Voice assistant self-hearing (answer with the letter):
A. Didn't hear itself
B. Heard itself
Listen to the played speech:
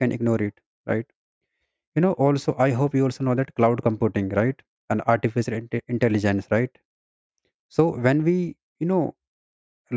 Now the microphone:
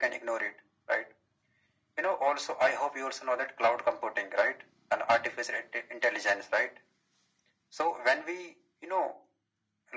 B